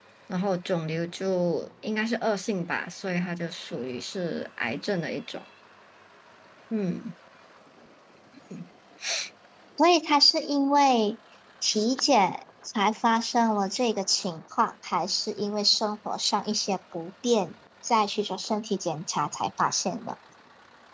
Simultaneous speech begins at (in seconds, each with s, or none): none